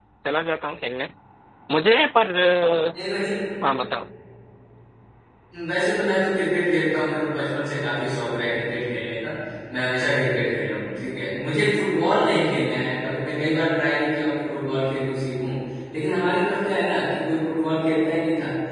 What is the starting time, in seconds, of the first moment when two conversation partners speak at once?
none

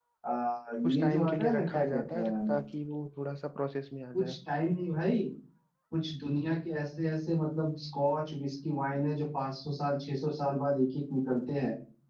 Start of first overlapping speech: 0.8 s

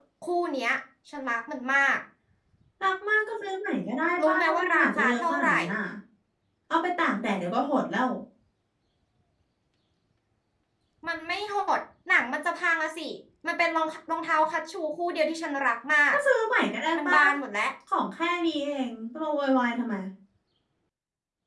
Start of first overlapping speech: 4.3 s

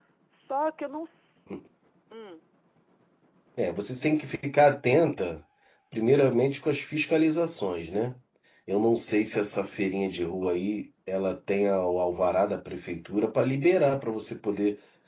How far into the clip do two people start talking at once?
none

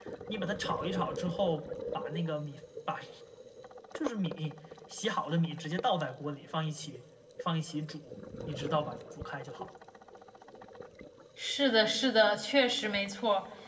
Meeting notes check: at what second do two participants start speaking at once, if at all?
none

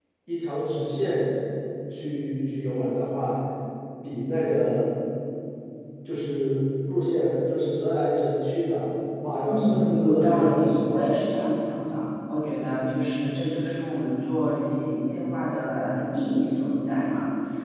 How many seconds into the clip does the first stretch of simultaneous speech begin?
9.5 s

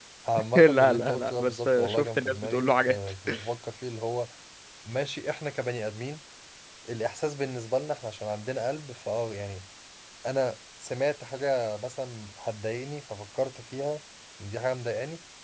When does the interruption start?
0.6 s

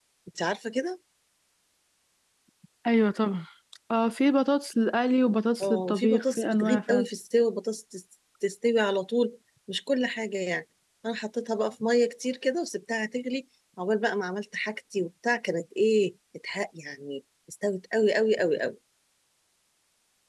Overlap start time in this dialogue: 5.6 s

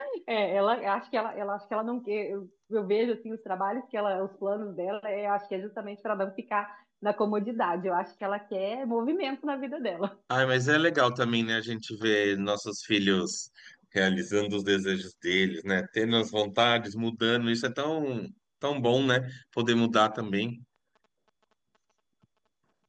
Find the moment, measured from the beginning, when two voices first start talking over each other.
none

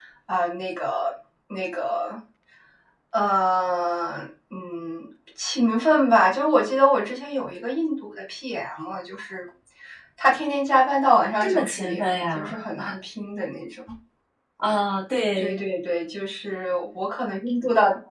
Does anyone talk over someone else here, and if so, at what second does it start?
11.4 s

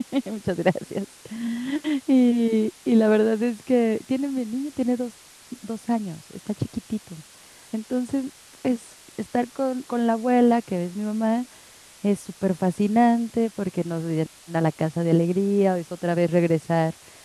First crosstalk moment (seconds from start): none

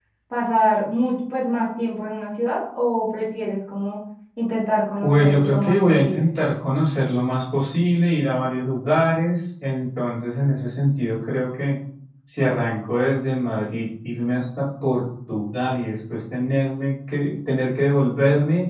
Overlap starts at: 5.0 s

